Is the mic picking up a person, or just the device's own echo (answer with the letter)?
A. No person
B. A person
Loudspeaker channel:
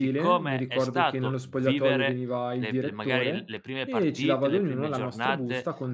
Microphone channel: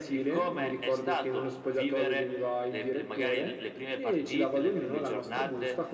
A